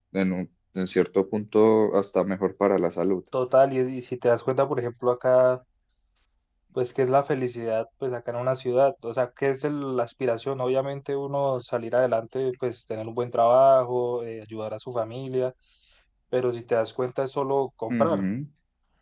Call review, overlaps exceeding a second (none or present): none